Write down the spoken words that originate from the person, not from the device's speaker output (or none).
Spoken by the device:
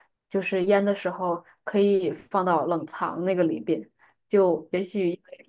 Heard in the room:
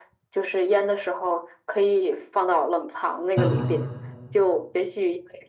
嗯